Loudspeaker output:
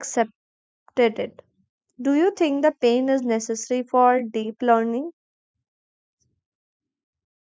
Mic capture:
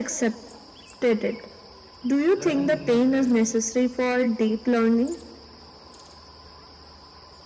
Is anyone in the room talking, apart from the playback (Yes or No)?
Yes